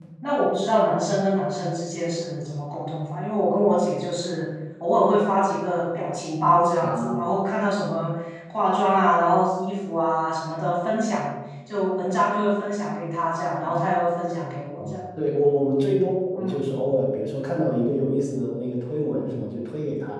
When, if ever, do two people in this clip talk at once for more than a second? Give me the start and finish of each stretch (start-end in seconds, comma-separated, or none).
none